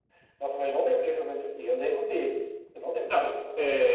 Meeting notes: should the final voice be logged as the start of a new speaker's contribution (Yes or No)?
Yes